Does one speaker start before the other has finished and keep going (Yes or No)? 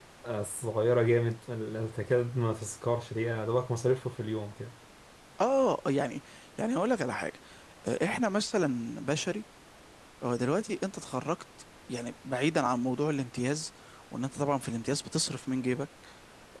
No